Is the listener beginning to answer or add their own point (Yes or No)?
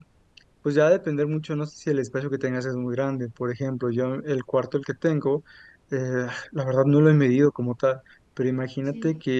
No